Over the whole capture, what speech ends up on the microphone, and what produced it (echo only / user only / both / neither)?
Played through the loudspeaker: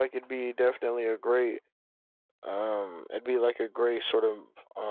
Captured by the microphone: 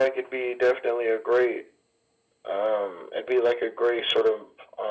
echo only